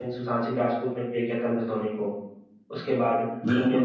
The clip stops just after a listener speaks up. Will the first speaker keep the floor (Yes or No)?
No